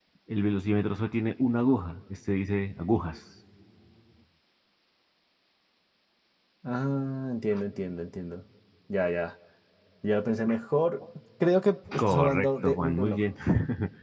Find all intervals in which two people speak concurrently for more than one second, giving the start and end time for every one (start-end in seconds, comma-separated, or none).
12.0-13.2